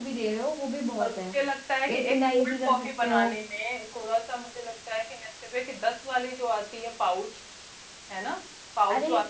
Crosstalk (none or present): present